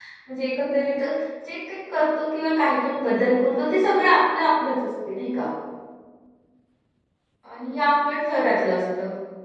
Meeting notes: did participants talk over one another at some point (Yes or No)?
No